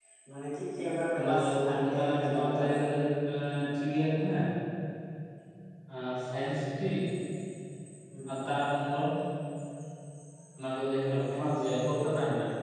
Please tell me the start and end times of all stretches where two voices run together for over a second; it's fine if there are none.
1.2-2.8

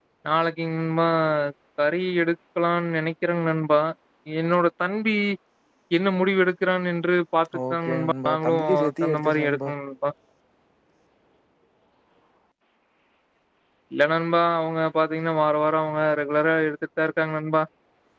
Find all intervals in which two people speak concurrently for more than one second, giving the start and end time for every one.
7.7-9.7

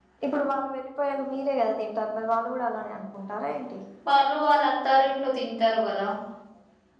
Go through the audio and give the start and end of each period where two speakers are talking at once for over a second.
none

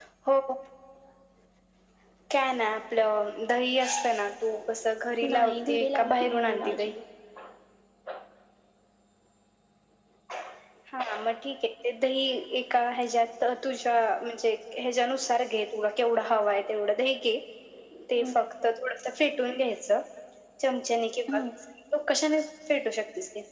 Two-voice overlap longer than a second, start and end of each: 5.3-6.9

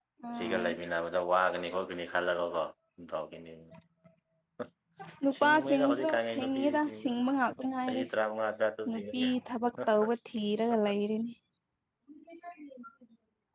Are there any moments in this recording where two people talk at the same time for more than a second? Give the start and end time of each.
5.4-7.1

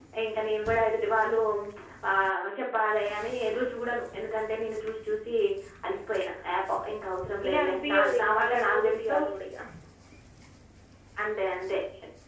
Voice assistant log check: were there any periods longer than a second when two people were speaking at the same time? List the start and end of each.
7.4-9.2

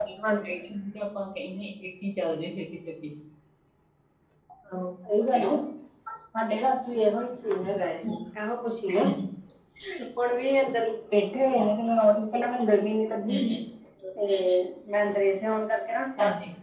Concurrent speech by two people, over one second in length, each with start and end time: none

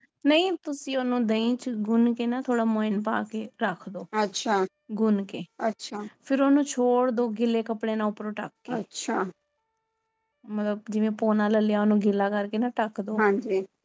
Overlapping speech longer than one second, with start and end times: none

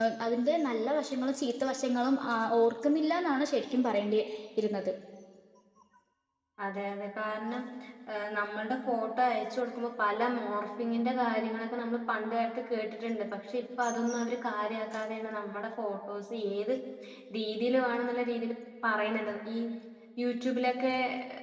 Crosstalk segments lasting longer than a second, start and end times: none

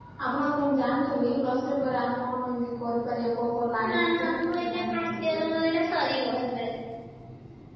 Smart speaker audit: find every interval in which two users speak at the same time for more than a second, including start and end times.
3.9-5.4

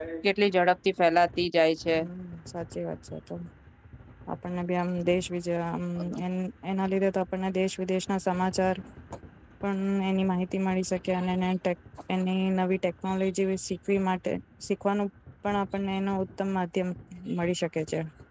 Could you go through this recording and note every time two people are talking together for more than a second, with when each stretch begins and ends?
none

